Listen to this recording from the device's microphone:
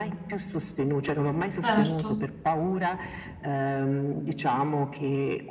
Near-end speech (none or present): present